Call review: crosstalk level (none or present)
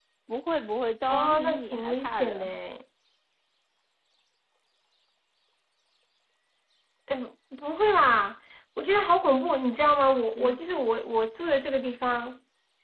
present